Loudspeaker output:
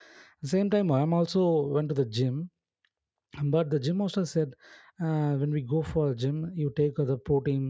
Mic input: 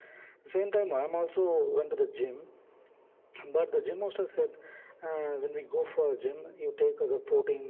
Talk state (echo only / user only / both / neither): echo only